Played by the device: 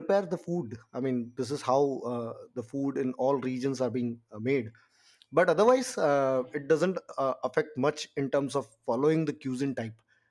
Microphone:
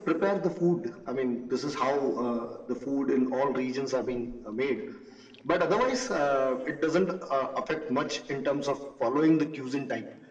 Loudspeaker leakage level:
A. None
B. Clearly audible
B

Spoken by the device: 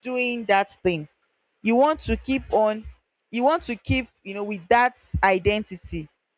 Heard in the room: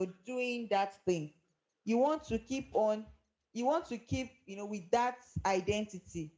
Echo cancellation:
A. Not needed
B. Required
B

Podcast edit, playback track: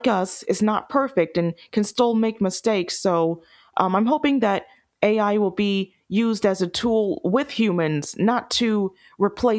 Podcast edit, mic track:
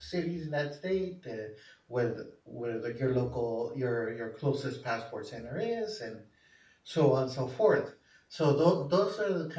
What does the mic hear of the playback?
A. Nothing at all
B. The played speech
A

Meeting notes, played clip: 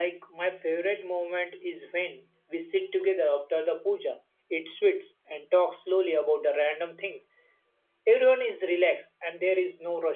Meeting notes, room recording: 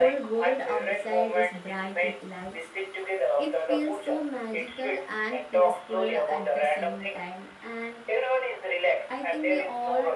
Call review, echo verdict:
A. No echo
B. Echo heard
B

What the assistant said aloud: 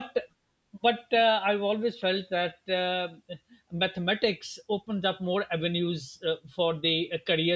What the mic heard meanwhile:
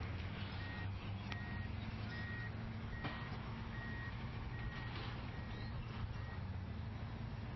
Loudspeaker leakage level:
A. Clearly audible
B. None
B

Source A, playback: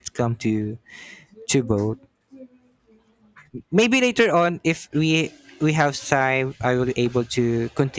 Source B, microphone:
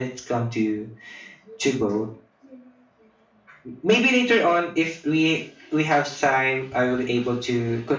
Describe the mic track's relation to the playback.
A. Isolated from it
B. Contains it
B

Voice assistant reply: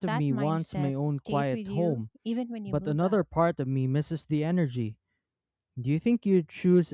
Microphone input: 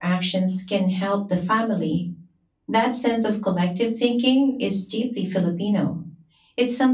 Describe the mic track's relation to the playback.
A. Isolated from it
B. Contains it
A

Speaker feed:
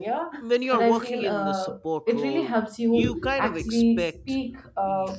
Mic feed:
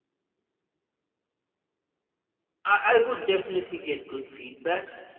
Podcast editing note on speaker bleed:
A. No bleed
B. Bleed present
A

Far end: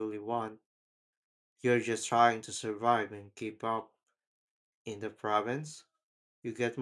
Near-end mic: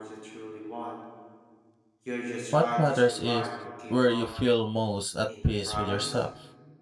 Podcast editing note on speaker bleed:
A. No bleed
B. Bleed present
B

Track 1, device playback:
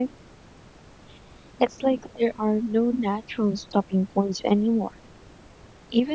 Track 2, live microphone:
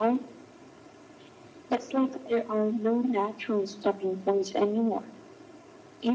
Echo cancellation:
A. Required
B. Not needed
A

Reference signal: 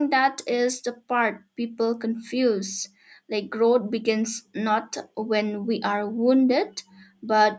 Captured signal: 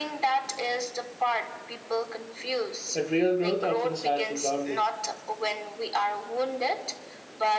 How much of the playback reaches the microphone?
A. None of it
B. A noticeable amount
B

